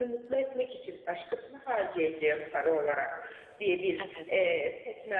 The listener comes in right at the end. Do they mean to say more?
No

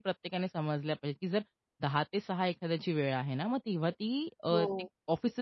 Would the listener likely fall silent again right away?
Yes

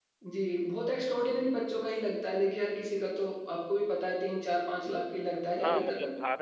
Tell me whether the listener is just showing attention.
No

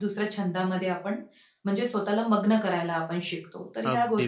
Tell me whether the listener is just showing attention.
No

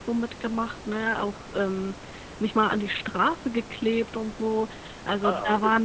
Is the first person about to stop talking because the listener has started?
No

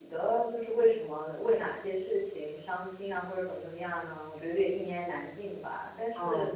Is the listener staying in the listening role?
Yes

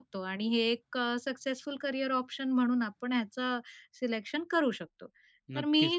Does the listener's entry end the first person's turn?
Yes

